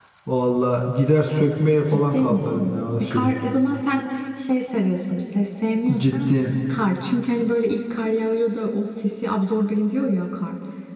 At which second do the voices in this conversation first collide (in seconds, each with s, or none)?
1.9 s